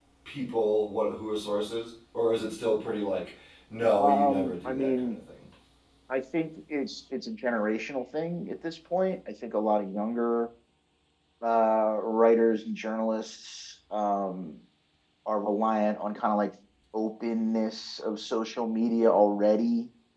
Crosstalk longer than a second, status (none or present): present